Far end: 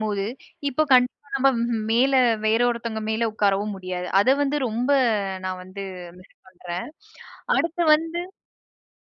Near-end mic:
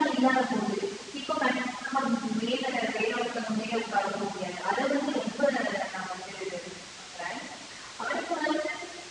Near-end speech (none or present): none